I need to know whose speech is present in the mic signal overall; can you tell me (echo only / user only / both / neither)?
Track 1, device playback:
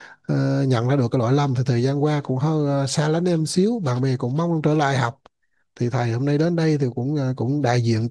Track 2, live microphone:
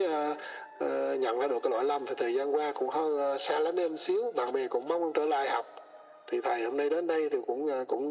echo only